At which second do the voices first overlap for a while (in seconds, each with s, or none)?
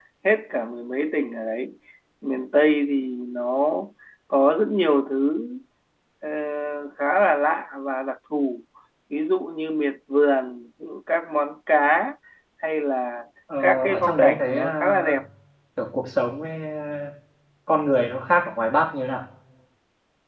13.5 s